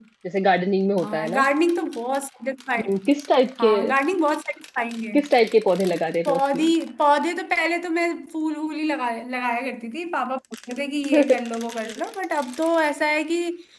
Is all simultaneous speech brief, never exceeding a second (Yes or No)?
Yes